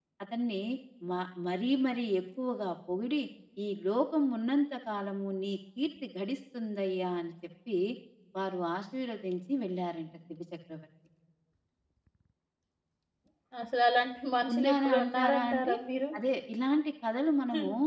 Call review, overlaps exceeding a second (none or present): present